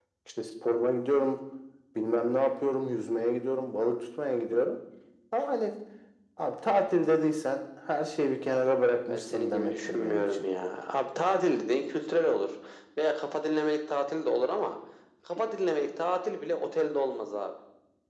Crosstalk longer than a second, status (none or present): present